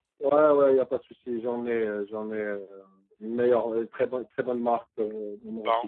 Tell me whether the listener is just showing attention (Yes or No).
No